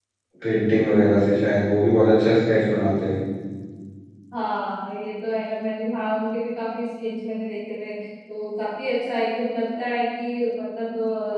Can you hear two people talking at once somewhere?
No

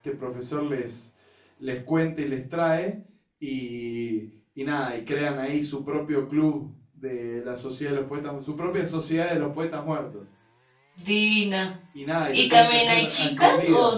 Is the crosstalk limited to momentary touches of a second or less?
No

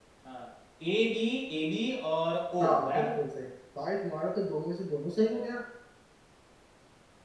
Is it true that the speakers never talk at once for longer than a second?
Yes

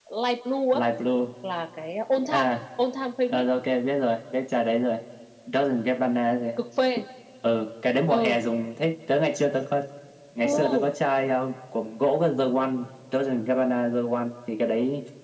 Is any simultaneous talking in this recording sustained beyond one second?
No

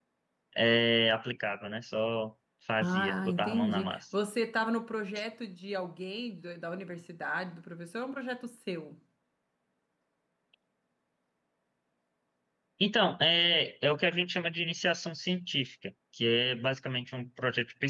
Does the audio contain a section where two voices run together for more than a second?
Yes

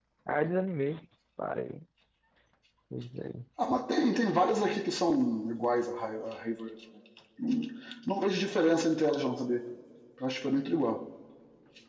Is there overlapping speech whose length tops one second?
No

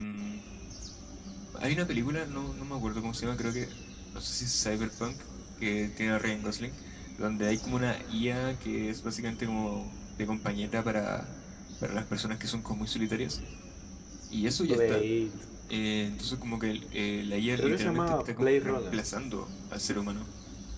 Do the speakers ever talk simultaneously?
Yes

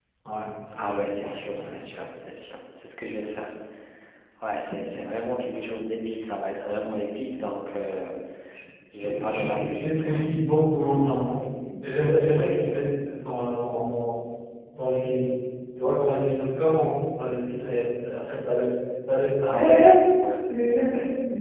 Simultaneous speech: Yes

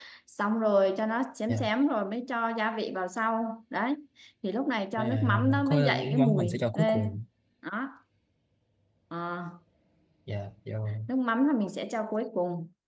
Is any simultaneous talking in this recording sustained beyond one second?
Yes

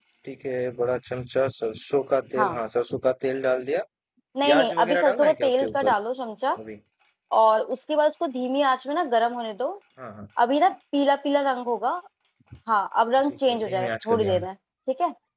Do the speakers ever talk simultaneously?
Yes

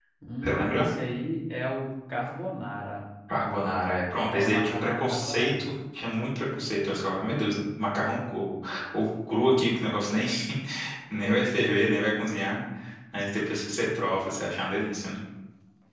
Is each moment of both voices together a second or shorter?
No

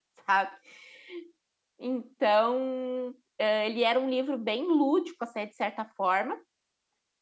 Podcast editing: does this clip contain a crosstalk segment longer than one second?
No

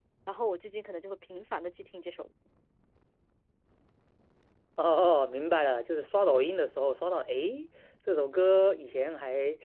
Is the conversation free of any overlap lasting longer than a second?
Yes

